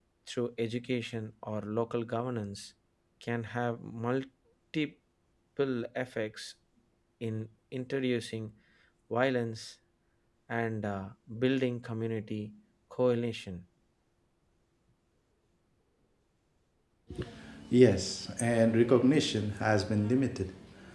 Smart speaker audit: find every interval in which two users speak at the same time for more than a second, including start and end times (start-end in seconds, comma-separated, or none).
none